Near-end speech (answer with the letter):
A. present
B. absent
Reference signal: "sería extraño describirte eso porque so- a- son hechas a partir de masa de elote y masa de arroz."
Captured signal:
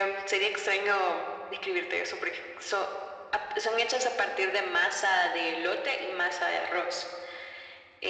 B